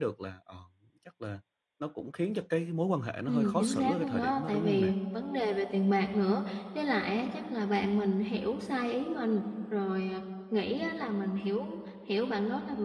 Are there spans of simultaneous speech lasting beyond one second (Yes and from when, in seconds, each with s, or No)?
Yes, from 3.3 s